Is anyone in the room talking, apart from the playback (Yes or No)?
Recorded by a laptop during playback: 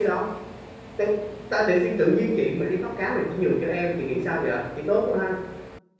Yes